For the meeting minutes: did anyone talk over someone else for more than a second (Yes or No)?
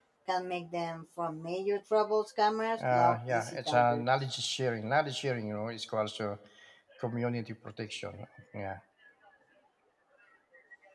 Yes